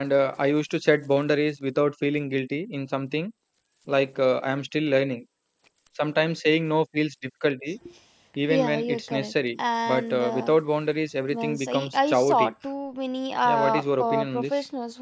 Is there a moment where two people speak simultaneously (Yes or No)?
Yes